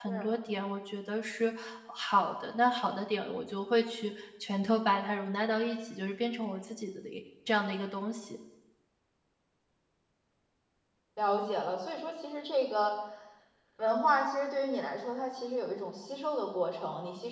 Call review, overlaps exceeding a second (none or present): none